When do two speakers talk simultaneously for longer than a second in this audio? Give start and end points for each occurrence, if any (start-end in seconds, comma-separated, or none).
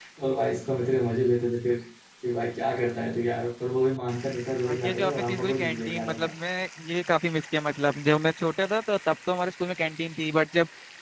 4.5-6.3